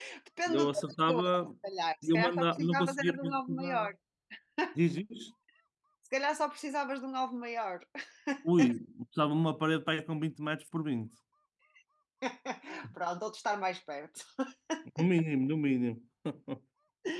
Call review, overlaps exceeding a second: present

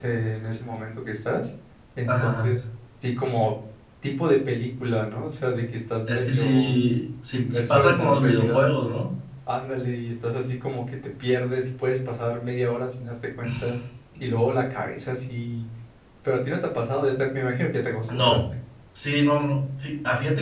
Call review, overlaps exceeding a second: present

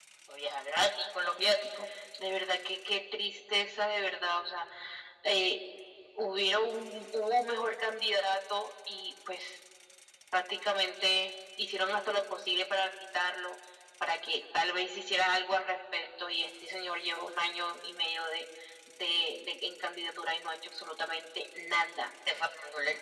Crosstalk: none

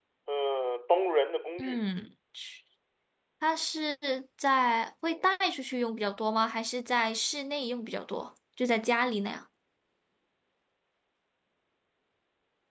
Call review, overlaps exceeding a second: none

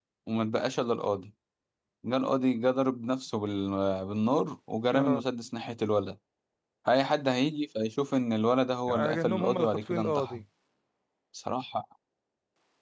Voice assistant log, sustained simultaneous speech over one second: present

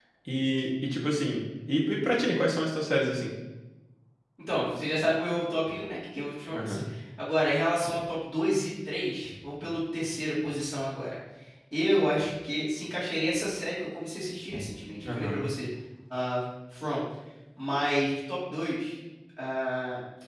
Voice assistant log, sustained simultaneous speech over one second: none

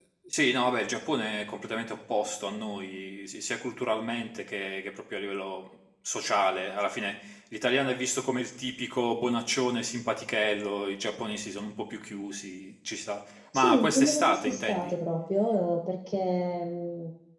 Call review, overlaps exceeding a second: present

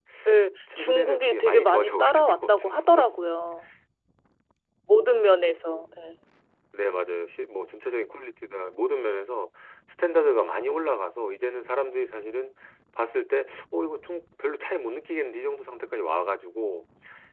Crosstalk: present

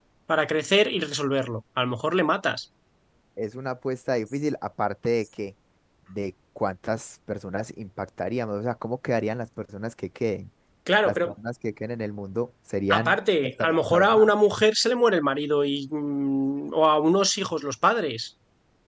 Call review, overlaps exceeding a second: present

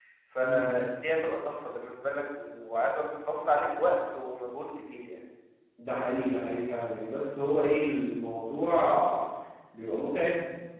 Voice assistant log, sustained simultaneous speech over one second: none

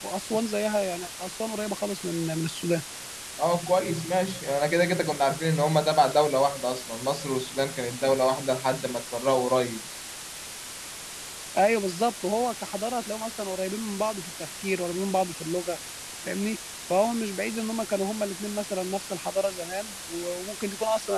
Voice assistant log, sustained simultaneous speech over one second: none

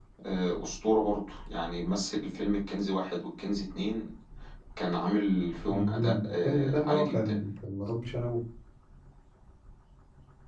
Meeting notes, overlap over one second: present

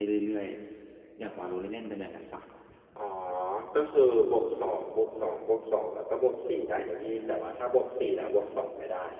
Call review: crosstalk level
none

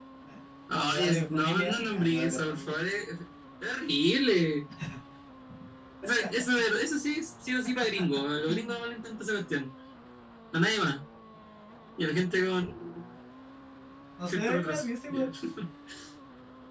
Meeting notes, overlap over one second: present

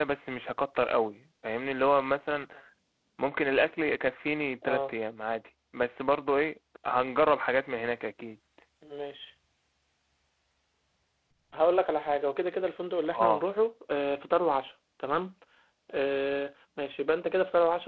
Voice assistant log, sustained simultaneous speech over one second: none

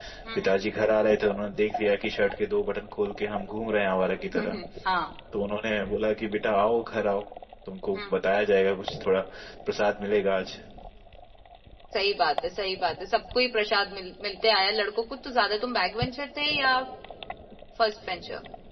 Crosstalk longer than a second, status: none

